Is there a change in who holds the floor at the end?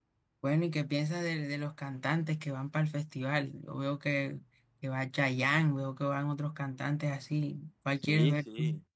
Yes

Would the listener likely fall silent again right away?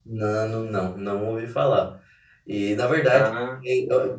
Yes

